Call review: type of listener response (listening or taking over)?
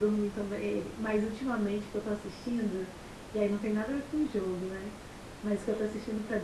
listening